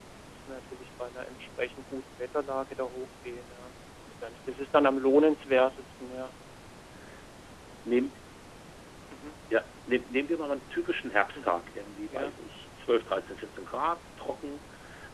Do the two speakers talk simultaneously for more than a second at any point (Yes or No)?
No